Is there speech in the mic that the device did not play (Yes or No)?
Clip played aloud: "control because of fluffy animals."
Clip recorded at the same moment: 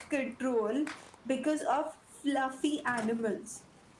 No